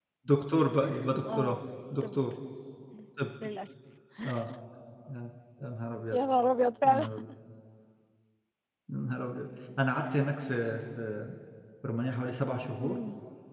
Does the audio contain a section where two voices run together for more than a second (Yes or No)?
No